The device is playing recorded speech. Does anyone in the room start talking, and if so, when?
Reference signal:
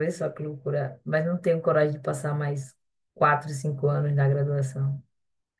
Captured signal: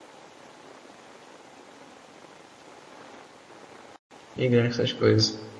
4 s

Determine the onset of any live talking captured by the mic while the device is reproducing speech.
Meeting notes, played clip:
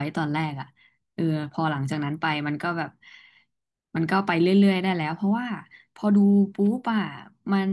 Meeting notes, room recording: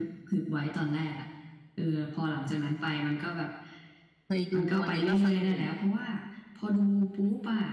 4 s

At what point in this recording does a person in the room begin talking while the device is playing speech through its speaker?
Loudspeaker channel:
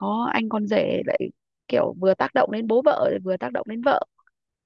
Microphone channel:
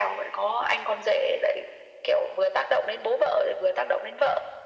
none

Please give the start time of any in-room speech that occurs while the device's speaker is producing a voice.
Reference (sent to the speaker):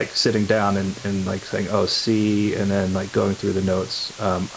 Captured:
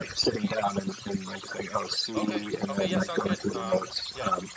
2 s

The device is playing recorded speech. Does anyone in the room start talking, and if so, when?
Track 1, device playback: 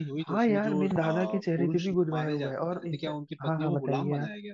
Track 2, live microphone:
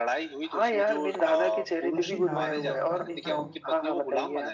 2 s

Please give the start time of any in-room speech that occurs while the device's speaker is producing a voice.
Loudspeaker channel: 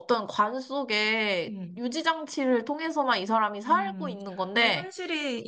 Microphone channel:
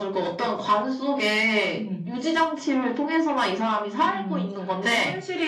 none

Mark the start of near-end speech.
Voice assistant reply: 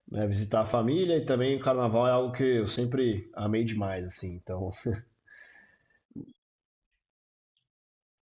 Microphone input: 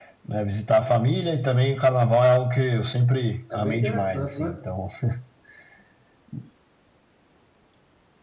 4 s

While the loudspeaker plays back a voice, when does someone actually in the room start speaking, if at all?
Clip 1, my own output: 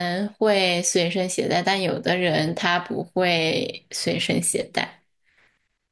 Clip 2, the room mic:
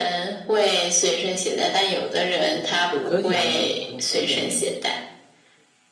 3 s

